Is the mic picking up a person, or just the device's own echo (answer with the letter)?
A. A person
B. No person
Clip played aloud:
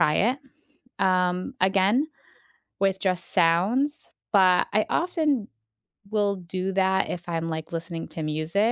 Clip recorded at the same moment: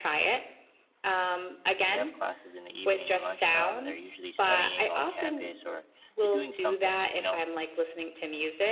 A